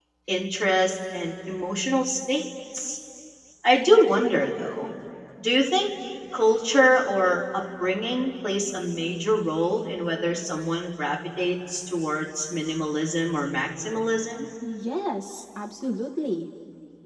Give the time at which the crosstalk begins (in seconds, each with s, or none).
none